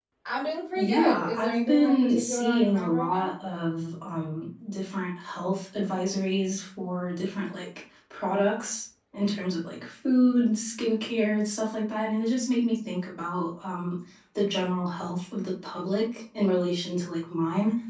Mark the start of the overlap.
0.8 s

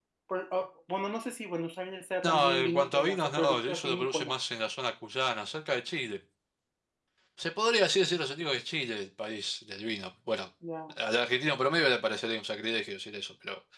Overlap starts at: 2.2 s

